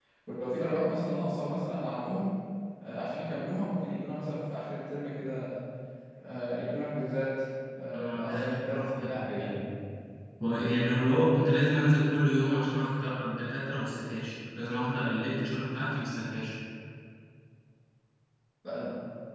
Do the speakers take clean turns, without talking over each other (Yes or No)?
No